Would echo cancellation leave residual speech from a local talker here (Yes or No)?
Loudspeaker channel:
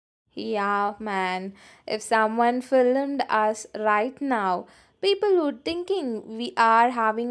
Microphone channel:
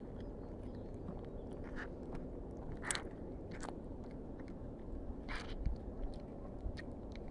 No